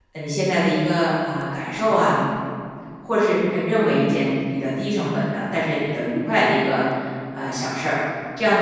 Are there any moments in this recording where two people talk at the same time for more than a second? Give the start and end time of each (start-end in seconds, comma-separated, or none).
none